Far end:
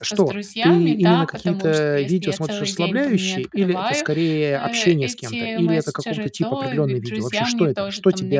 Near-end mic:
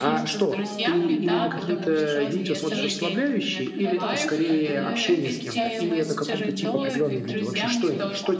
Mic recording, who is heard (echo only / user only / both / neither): both